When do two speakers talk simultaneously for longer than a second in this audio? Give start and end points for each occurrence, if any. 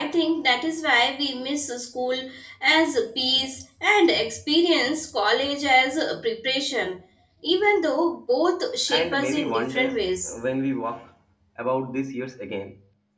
8.9-10.3

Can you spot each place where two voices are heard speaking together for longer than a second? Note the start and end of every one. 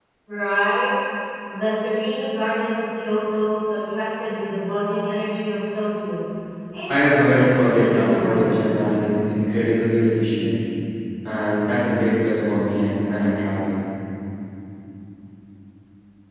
6.9-8.7

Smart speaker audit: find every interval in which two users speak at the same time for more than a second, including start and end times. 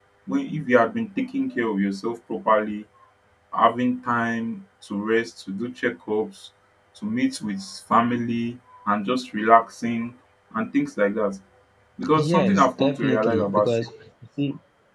12.1-13.7

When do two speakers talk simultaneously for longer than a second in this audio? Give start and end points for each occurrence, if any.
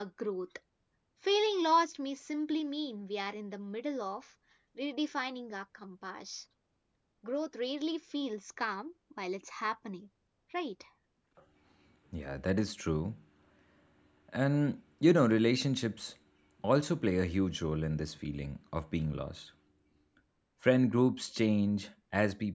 none

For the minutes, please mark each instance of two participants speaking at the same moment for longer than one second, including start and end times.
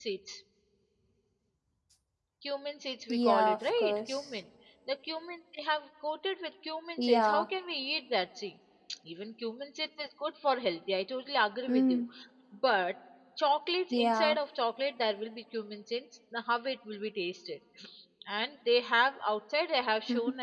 3.1-4.3

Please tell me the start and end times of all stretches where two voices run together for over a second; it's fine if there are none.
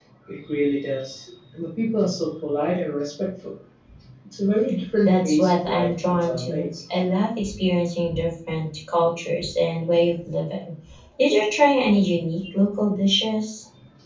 5.0-6.7

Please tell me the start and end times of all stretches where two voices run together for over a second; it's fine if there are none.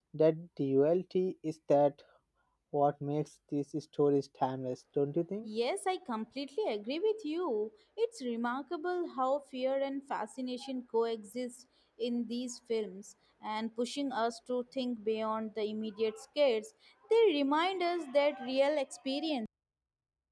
none

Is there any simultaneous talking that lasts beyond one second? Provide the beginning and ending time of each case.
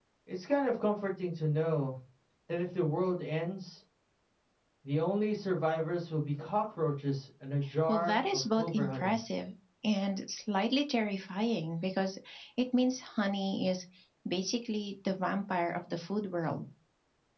7.9-9.2

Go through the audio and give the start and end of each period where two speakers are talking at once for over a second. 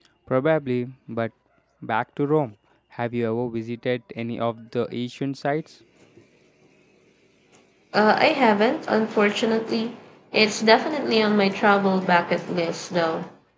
none

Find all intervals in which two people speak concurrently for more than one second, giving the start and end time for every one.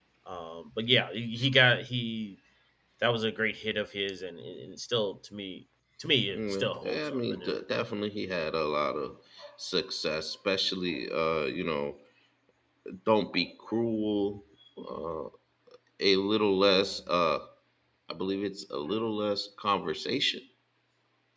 6.3-7.9

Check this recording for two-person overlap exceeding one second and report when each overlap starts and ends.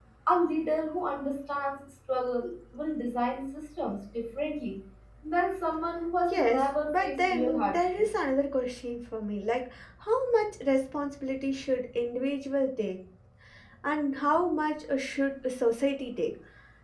6.3-8.1

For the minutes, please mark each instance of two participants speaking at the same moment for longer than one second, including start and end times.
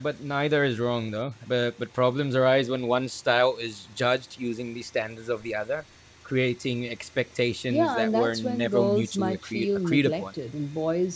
7.7-10.3

